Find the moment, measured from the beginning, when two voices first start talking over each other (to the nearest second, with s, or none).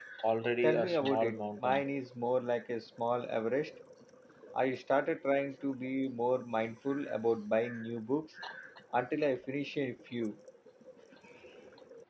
1 s